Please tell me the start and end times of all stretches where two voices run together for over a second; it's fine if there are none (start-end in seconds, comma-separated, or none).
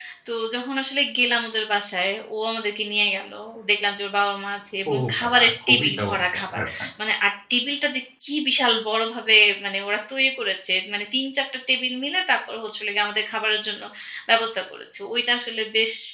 4.9-6.6